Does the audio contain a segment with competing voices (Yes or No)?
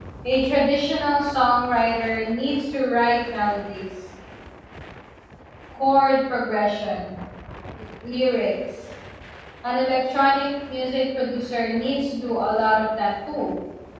No